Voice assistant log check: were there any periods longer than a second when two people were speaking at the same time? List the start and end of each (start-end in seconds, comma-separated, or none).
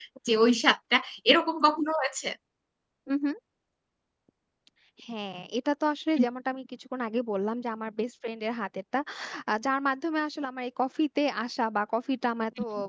none